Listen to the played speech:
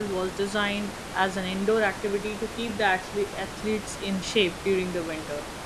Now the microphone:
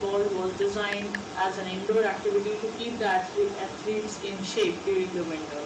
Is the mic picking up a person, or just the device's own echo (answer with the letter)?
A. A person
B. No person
B